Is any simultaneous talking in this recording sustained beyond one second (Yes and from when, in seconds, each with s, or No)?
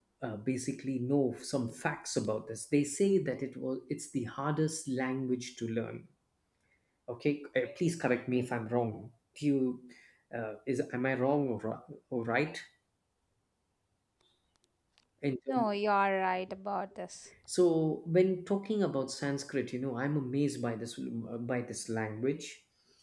No